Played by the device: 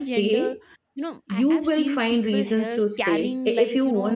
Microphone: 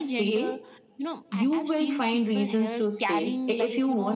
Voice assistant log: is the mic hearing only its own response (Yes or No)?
Yes